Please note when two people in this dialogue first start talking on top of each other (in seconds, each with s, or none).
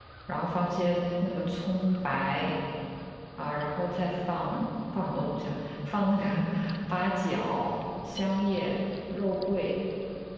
none